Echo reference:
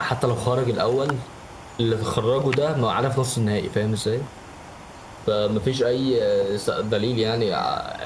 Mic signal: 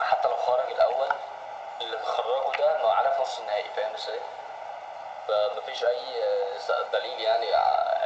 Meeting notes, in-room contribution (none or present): none